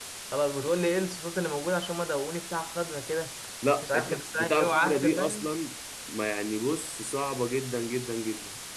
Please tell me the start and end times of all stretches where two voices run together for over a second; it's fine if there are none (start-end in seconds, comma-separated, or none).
3.8-5.5